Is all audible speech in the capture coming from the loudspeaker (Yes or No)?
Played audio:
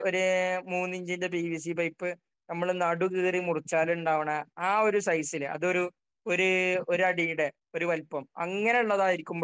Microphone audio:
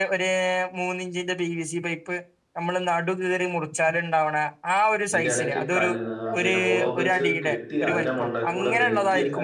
No